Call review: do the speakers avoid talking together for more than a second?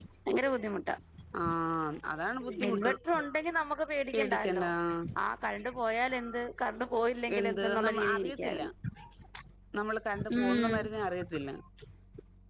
No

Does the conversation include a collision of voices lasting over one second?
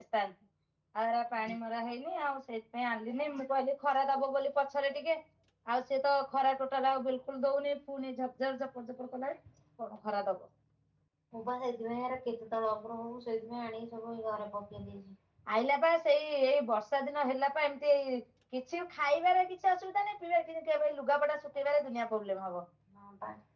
No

